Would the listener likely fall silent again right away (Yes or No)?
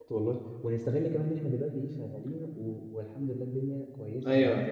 No